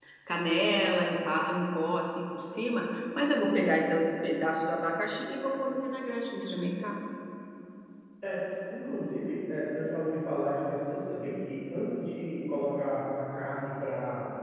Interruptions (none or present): none